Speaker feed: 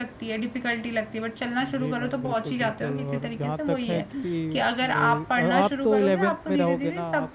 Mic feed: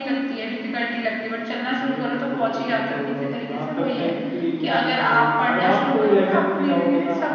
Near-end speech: none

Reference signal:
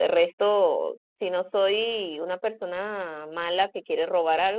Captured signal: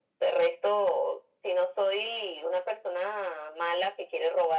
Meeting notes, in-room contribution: none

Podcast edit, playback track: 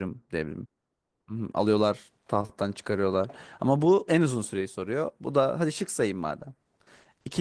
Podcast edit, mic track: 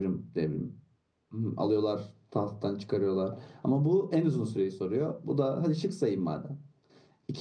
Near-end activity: none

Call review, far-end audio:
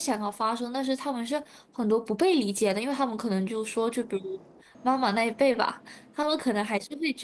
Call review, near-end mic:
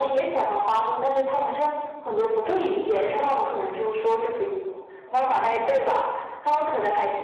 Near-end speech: none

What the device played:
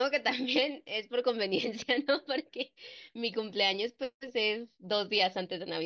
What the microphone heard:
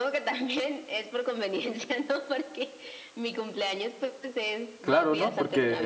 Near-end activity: present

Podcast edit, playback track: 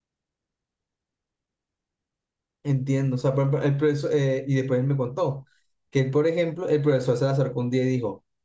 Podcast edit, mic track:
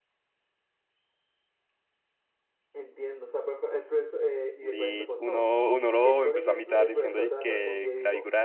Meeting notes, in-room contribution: present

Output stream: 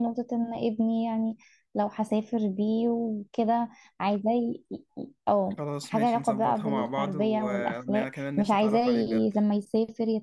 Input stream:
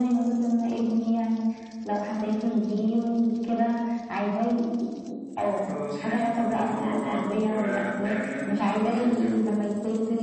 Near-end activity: none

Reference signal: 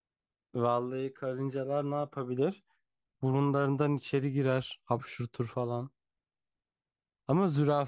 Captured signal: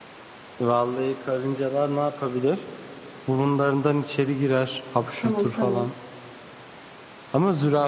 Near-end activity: present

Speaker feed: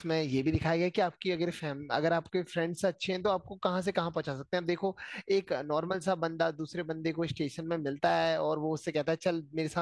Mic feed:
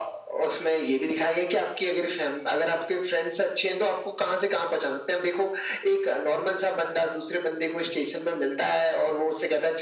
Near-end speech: none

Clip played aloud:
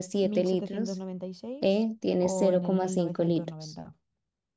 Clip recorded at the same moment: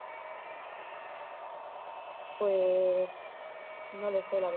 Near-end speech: present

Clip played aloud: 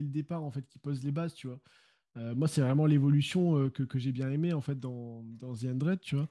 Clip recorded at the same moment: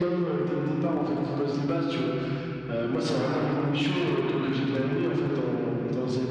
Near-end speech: none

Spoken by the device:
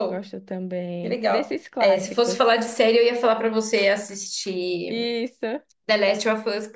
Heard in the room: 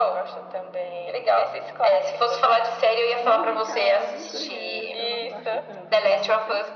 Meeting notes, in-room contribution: present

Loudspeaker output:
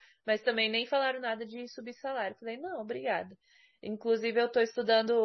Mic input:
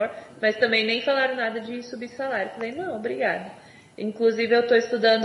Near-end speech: none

